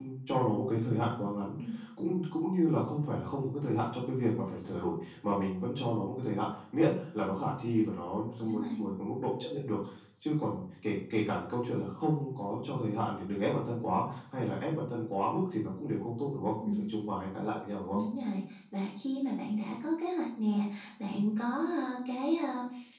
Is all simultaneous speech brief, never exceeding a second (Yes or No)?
Yes